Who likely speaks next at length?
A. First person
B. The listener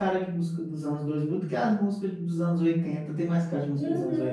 B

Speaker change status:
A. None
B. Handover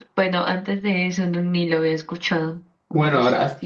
B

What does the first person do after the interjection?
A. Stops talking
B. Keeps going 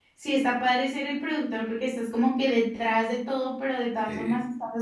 B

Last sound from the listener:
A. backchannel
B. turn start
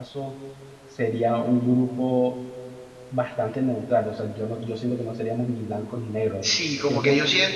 B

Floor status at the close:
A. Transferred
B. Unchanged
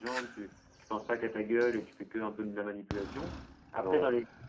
B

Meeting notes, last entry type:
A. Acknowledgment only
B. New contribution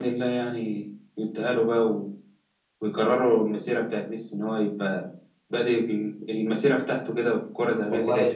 B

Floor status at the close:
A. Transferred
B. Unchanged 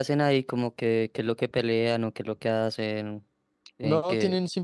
A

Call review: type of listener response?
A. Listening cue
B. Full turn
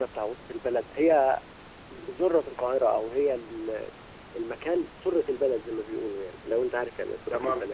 B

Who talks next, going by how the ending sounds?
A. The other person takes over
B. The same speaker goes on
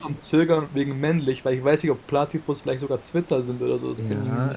A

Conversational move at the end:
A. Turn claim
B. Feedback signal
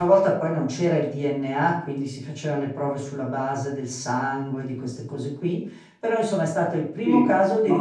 B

